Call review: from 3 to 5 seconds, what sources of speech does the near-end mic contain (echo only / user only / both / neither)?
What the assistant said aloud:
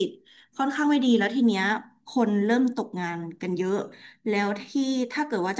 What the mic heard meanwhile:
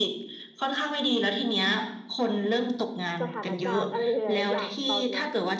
both